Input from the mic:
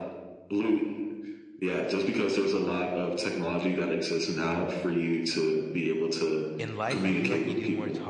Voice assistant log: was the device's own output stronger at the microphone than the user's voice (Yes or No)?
Yes